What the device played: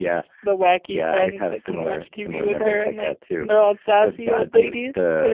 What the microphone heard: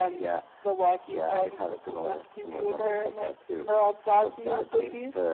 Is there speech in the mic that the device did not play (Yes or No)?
No